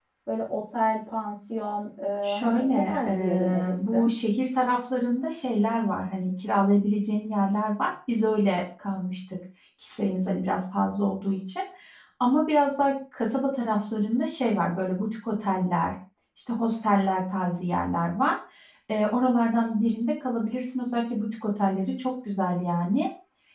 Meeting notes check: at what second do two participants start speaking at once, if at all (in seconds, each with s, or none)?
2.2 s